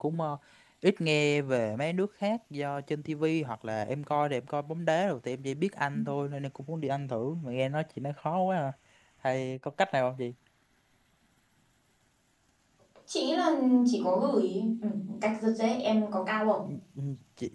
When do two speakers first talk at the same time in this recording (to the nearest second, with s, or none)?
none